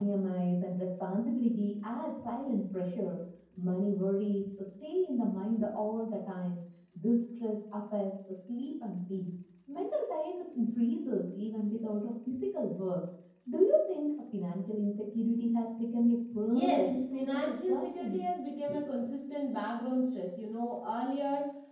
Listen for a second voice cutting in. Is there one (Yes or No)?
Yes